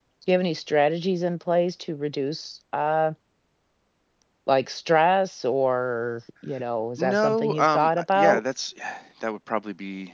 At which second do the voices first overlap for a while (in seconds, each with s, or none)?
7.0 s